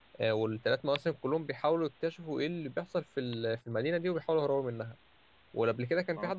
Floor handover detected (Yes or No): No